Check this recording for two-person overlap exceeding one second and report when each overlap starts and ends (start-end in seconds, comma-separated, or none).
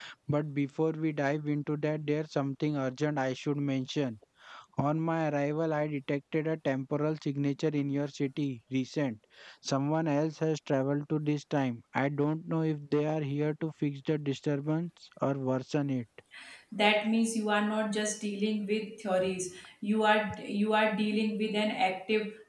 none